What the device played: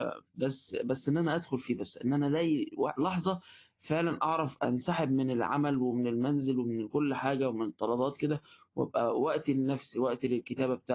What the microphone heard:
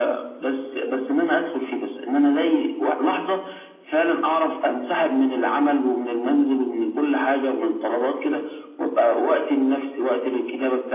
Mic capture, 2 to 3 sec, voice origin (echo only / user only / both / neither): echo only